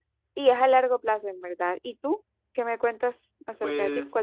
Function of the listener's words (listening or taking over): taking over